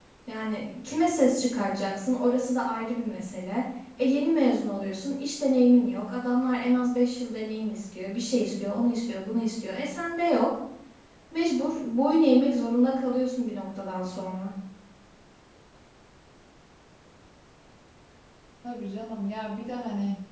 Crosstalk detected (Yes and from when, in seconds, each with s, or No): No